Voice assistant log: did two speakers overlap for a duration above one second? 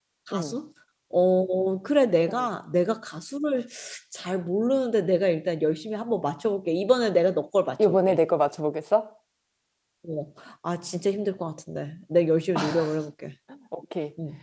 No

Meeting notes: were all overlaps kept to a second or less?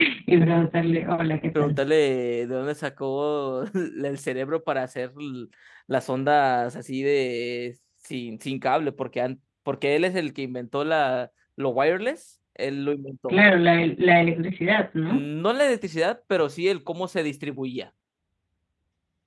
Yes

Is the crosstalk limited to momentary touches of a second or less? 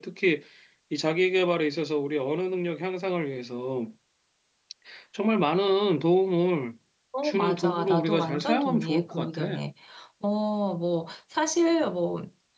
No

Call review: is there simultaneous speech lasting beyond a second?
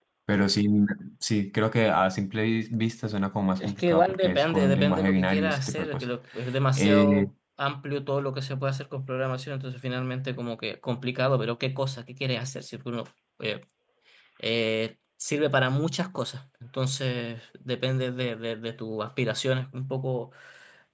Yes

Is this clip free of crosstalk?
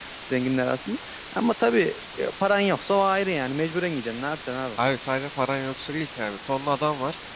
Yes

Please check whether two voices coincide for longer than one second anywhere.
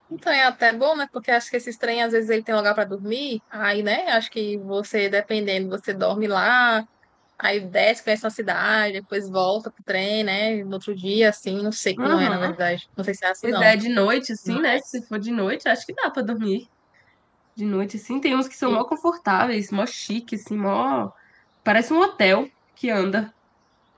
No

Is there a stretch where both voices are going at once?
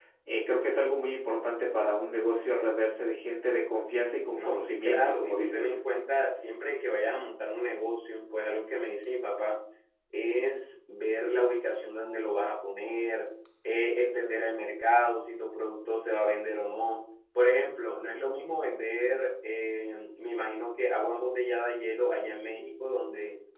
Yes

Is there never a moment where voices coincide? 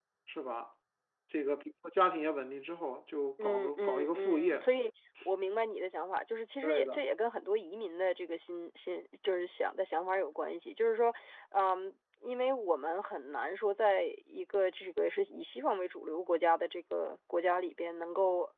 No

